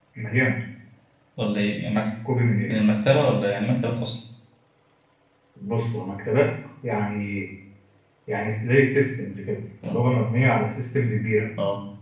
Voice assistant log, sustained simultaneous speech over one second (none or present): none